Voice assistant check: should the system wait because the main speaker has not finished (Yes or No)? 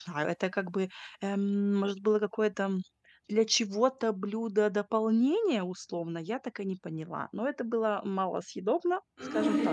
No